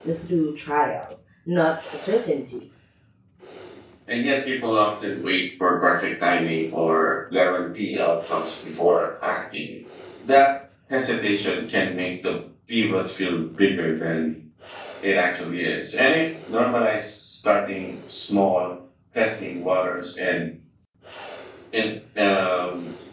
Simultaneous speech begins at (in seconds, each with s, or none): none